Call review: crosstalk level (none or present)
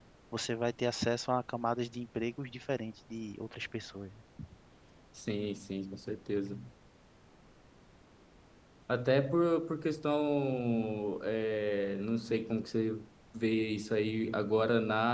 none